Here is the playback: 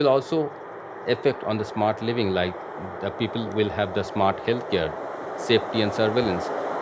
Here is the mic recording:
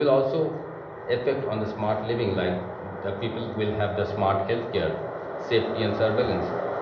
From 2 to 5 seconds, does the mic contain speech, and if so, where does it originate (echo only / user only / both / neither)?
echo only